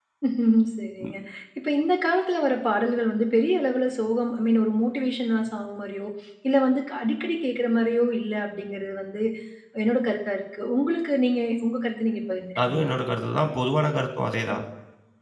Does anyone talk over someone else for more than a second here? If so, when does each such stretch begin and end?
none

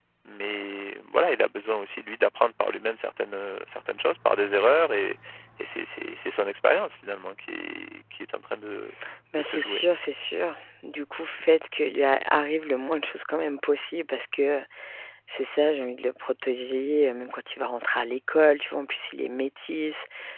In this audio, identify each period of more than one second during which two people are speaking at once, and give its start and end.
none

